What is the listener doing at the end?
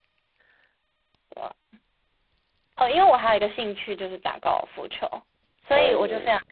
listening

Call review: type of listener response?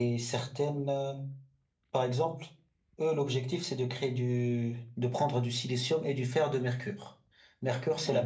listening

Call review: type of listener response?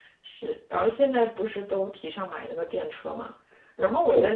listening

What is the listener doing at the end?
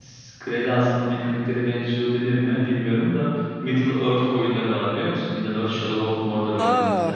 taking over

